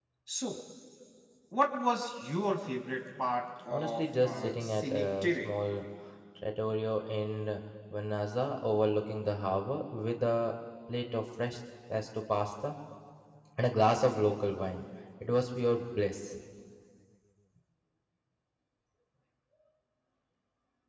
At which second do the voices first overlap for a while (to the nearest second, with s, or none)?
4 s